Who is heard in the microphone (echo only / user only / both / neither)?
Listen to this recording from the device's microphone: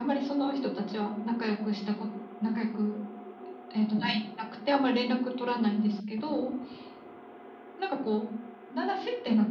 echo only